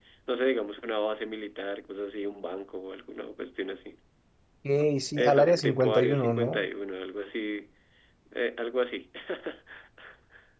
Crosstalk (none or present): present